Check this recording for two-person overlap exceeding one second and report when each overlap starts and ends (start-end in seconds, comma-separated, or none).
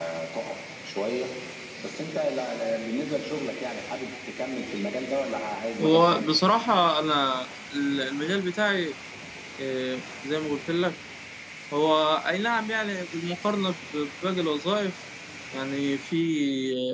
none